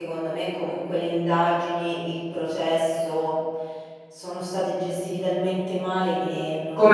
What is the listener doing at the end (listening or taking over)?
taking over